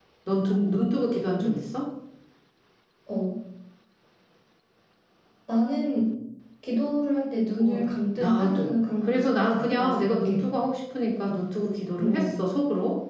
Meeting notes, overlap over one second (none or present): present